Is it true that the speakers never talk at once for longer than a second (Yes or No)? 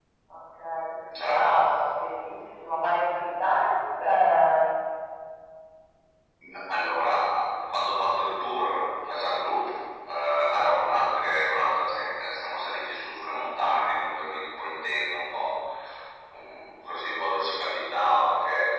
Yes